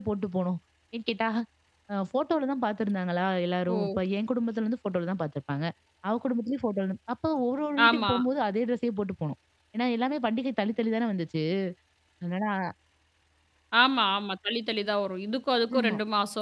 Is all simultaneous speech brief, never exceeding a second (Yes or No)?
Yes